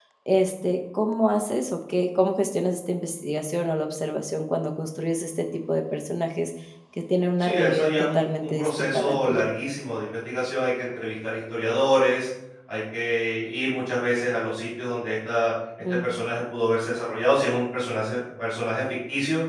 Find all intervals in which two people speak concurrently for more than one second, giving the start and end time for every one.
7.4-9.4

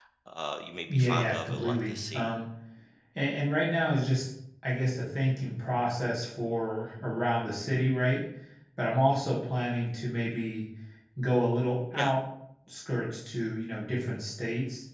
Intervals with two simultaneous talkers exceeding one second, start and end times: 0.9-2.3

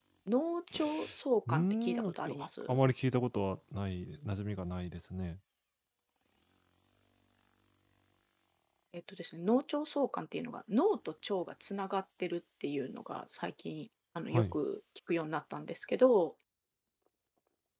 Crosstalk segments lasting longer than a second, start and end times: 1.5-2.8

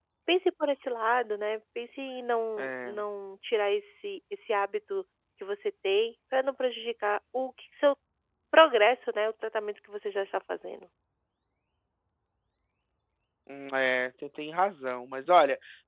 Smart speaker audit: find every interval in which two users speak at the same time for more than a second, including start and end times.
none

